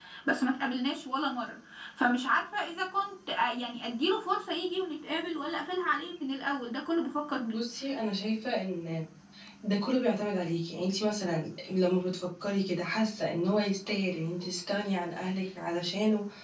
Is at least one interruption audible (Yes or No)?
No